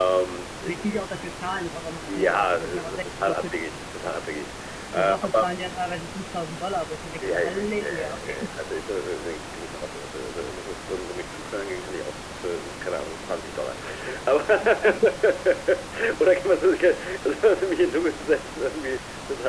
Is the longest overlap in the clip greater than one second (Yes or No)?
Yes